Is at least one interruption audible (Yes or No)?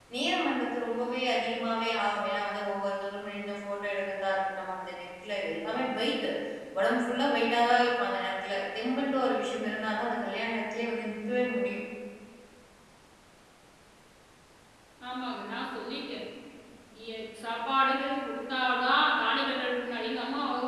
No